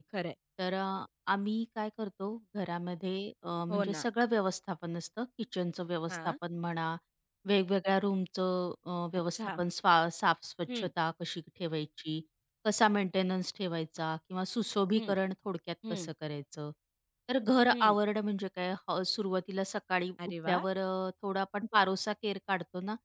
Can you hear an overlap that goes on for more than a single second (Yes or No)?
No